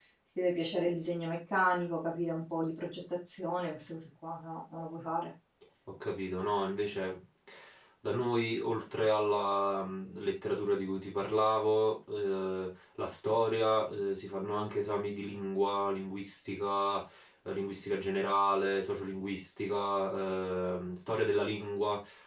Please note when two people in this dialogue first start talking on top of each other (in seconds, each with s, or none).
none